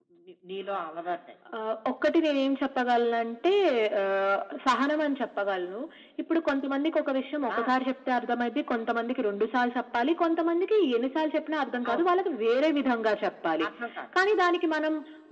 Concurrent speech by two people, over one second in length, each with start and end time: none

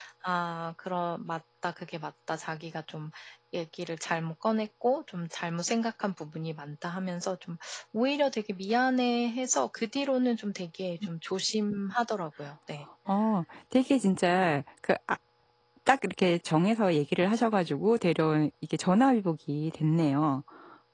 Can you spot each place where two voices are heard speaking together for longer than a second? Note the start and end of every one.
none

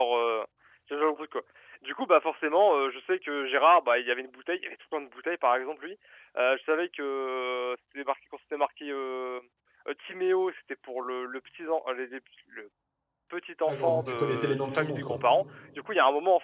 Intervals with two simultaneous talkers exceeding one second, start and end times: 13.7-15.2

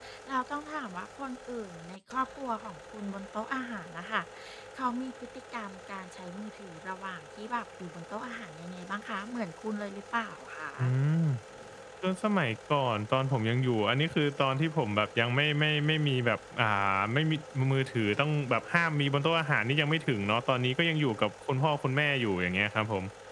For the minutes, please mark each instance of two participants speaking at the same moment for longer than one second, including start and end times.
none

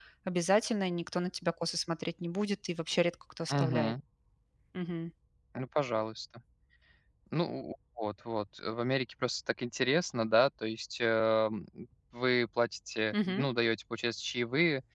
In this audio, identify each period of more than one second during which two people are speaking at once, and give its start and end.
none

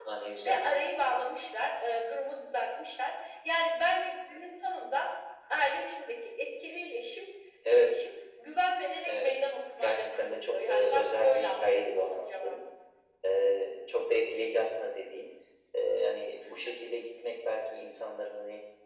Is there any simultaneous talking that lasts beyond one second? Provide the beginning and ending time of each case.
9.8-12.6

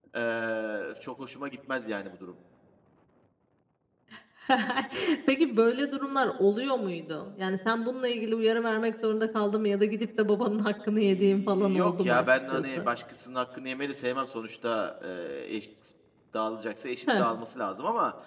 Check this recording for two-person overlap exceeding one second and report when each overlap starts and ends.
11.0-12.9

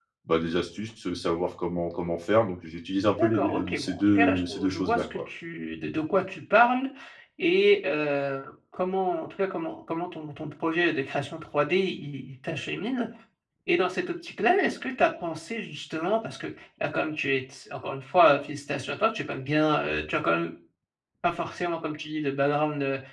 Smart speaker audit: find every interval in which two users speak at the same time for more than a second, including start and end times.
3.2-5.2

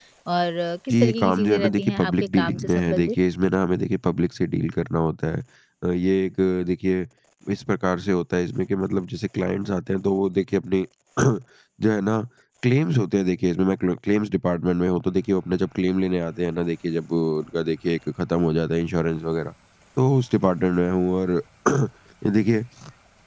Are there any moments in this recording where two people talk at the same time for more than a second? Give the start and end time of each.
0.9-3.1

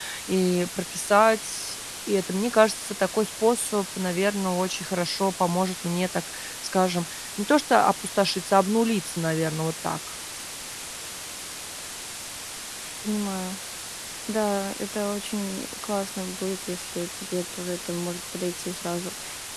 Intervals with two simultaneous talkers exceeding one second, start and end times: none

